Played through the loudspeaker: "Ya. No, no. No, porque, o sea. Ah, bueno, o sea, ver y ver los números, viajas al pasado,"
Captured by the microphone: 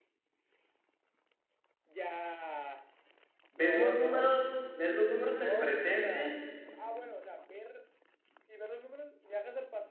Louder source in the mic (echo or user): user